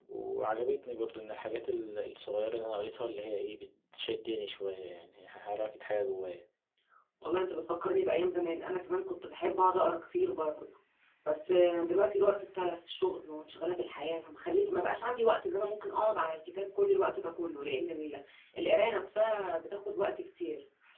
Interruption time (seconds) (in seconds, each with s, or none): none